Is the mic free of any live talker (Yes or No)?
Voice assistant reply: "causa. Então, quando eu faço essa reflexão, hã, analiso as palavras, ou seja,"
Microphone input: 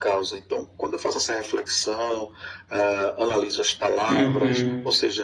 No